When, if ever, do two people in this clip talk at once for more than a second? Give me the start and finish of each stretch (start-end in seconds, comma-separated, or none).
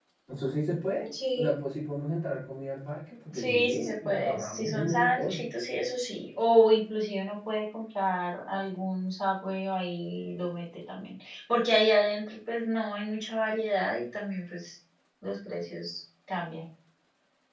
3.3-5.5